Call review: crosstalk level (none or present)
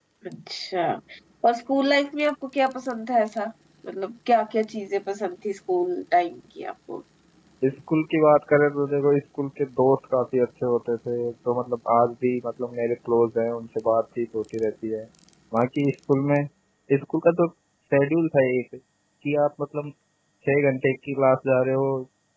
none